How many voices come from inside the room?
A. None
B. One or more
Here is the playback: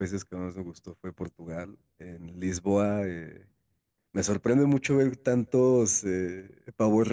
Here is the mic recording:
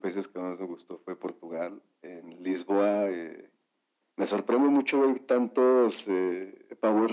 A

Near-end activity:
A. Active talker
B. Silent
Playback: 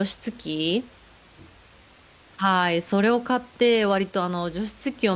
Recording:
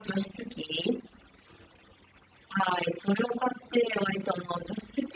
B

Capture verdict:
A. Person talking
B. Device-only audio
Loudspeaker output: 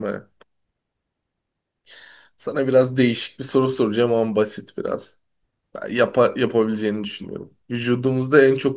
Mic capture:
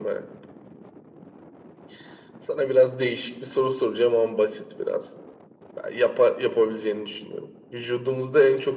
B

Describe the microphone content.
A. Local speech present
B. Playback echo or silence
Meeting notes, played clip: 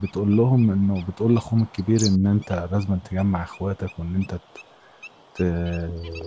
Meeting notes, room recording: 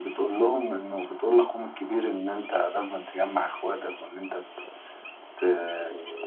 B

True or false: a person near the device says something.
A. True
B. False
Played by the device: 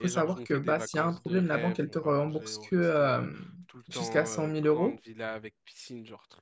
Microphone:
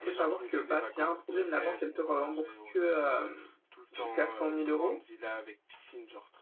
B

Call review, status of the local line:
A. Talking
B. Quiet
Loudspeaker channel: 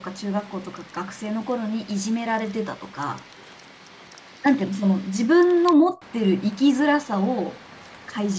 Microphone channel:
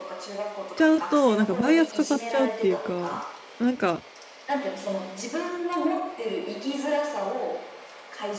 A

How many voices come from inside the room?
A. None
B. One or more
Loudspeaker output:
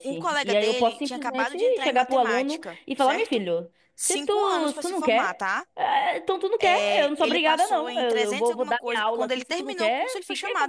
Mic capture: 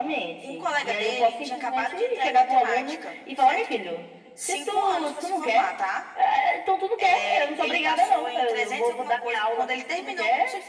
A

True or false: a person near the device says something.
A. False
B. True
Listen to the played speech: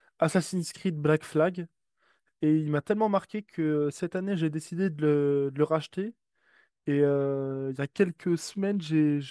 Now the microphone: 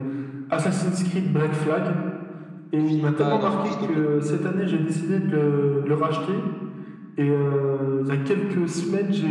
B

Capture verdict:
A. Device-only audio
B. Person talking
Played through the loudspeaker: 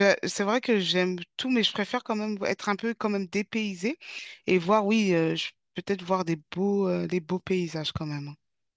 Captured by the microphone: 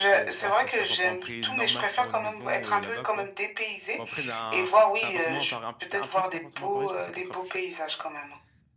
B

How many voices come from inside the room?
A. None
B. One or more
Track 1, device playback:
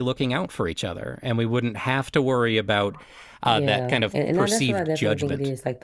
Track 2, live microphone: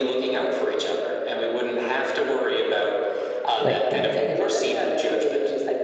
B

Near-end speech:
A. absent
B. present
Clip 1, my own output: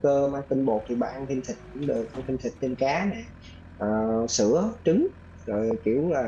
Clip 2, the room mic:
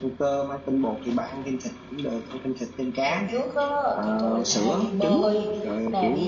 B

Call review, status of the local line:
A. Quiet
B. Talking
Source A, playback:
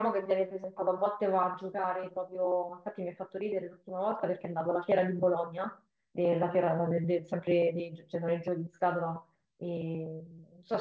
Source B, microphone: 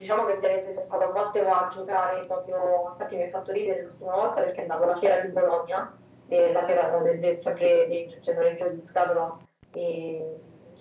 A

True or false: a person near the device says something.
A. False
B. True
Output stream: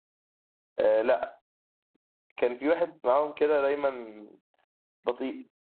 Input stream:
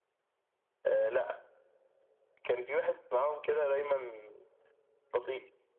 A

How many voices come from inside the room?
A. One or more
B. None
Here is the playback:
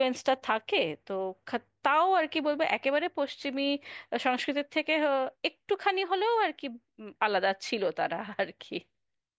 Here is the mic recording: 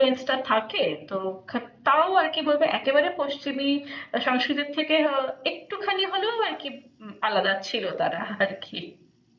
B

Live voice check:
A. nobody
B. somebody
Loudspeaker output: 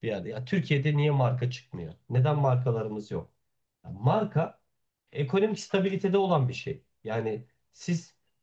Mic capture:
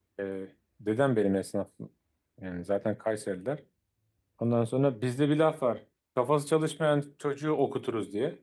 B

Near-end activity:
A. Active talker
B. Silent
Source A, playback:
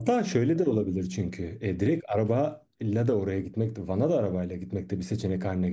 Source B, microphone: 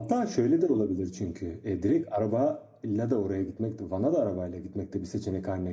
B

